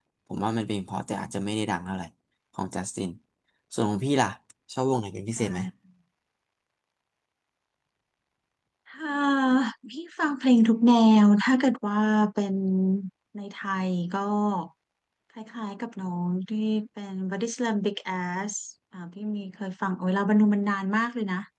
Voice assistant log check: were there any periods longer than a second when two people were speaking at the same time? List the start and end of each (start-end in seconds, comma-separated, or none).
none